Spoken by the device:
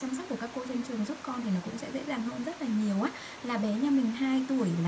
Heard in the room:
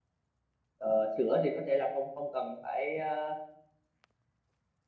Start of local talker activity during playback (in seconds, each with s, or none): 0.8 s